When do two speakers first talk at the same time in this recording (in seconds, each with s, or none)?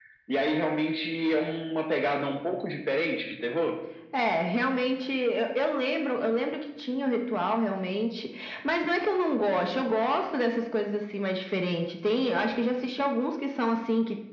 none